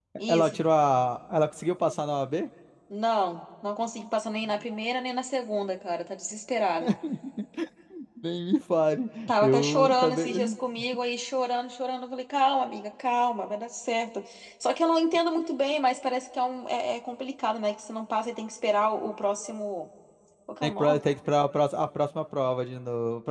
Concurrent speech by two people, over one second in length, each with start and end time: 9.3-10.6

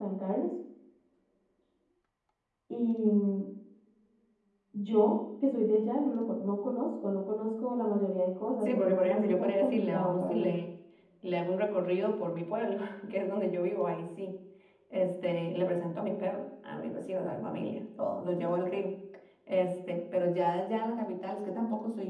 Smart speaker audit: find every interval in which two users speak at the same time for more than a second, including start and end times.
8.6-10.5

